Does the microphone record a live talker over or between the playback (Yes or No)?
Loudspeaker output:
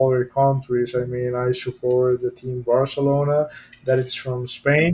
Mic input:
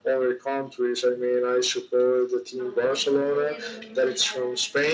Yes